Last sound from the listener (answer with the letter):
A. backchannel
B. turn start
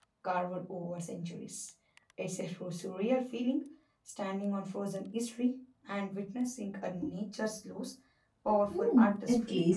B